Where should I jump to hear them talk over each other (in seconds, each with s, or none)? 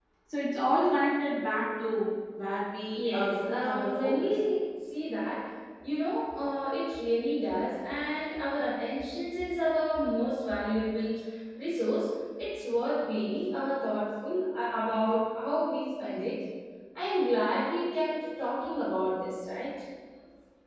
2.9 s